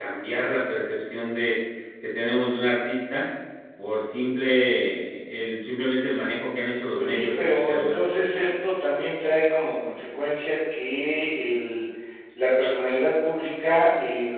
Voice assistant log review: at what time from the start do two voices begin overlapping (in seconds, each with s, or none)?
7.0 s